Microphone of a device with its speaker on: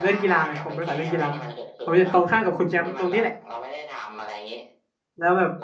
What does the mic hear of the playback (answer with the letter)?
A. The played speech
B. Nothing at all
A